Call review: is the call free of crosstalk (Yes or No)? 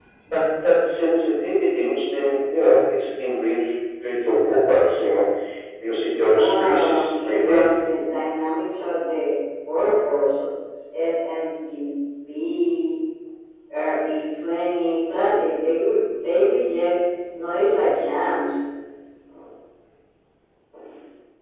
No